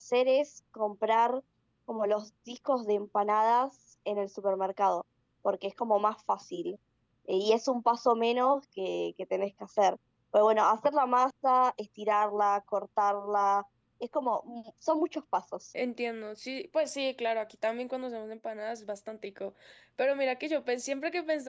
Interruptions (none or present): none